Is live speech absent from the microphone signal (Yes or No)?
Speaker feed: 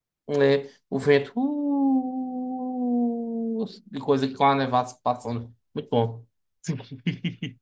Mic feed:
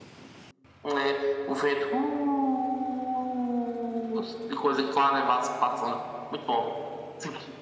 Yes